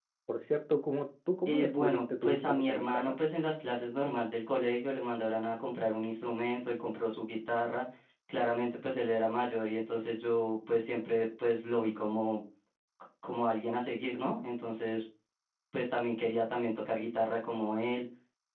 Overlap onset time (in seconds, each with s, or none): 1.4 s